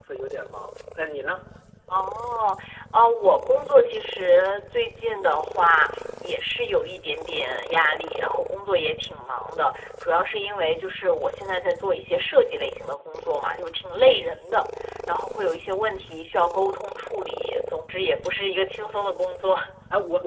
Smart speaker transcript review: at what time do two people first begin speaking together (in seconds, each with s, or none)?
none